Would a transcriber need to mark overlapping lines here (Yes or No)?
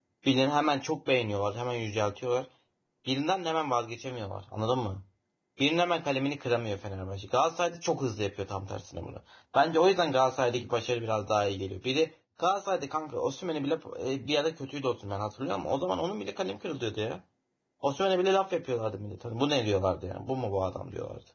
No